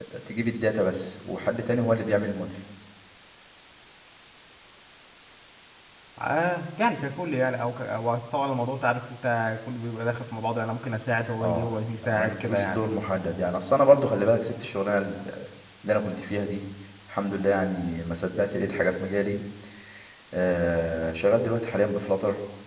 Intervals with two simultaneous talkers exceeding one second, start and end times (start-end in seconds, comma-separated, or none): 11.4-12.9